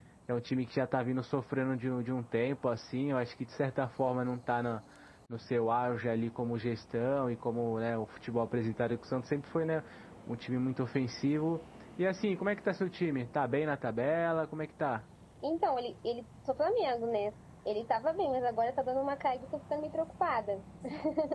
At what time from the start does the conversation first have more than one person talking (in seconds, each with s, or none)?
none